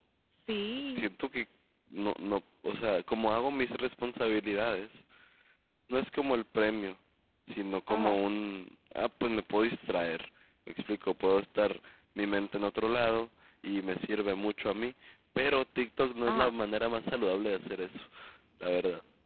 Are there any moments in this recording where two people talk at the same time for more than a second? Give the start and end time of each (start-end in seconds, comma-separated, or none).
none